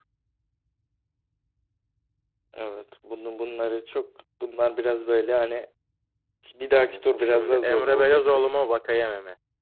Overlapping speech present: Yes, from 6.7 s

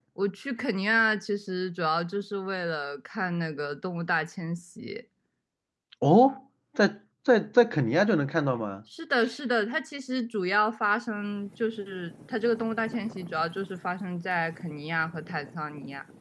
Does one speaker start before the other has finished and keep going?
No

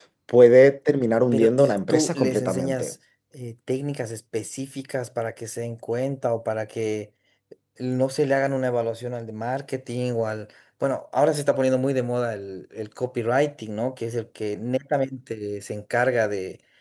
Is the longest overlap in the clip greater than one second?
Yes, from 1.3 s

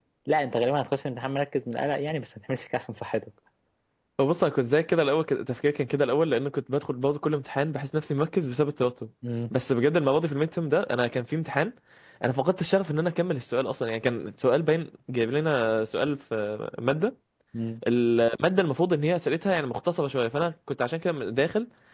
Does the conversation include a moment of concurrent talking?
No

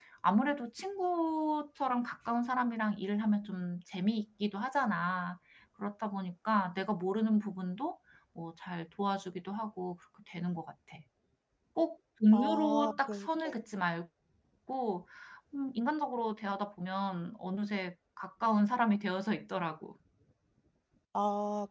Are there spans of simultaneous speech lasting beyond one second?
Yes, from 12.3 s

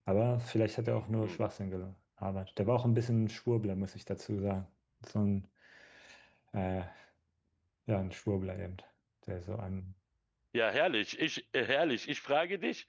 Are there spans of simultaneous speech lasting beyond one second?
No

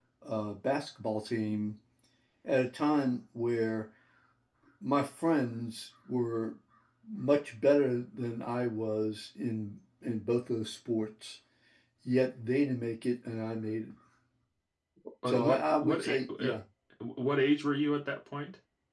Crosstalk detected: Yes, from 15.3 s

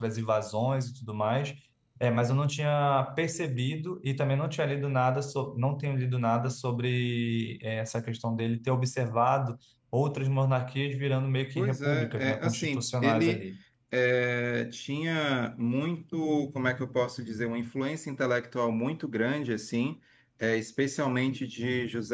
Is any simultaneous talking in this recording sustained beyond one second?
Yes, from 11.6 s

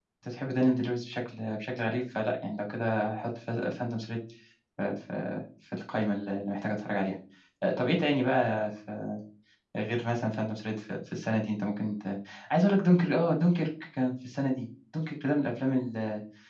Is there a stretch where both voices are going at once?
No

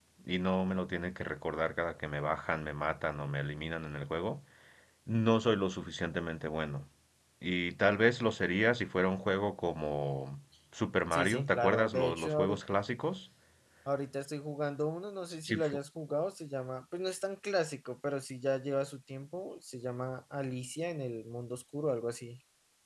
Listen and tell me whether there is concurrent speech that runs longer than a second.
Yes, from 11.1 s

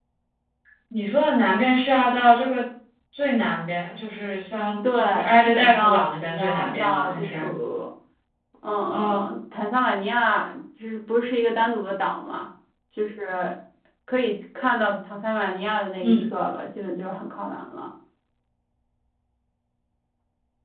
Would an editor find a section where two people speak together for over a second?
Yes, from 4.9 s

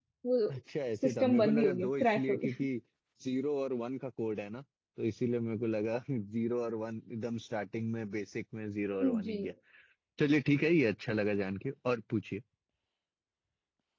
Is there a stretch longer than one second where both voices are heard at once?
Yes, from 1.0 s

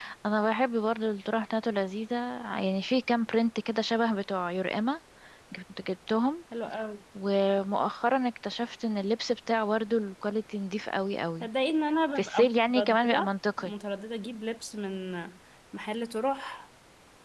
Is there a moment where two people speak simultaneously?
Yes, from 12.2 s

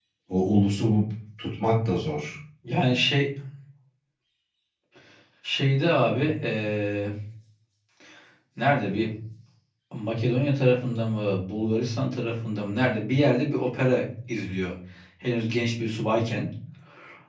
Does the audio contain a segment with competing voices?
No

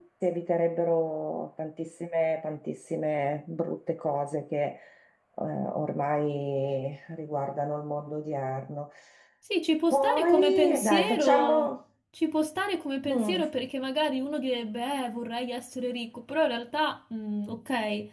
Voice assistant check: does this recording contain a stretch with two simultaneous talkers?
Yes, from 9.9 s

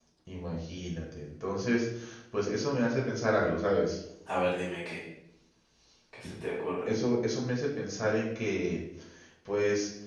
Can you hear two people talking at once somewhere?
No

